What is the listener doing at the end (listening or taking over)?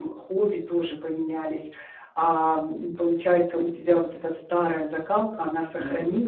listening